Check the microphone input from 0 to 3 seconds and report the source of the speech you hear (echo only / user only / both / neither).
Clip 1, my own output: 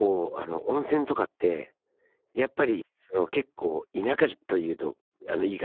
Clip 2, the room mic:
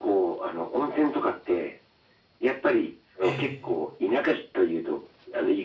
echo only